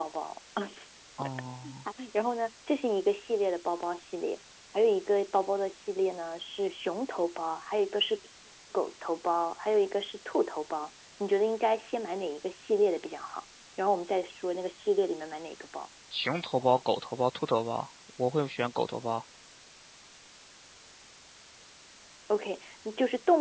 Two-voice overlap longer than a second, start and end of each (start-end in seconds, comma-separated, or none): none